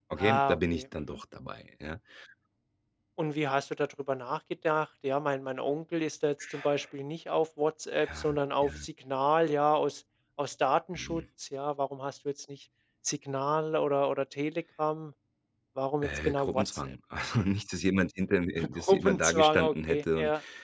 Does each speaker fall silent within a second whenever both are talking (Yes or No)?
No